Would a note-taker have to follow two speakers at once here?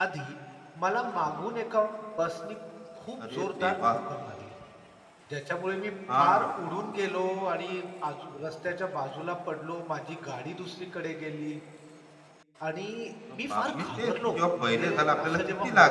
Yes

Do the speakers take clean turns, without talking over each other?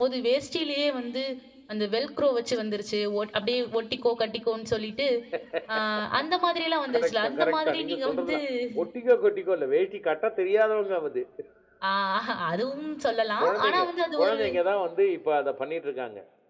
No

